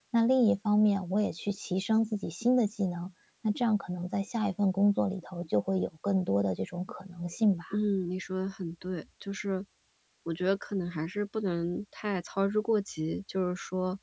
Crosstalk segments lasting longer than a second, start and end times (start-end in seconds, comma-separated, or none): none